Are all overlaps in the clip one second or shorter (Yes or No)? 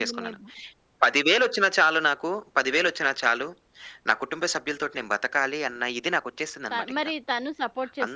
Yes